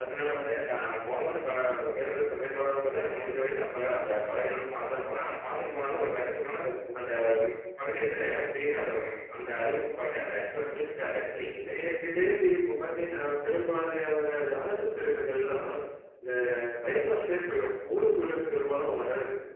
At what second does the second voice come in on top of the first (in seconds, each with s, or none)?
none